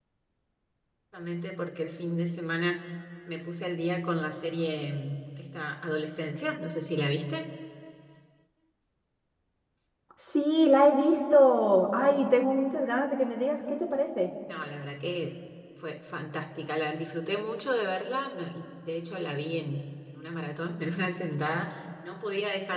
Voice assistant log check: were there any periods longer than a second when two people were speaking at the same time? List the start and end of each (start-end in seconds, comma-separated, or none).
none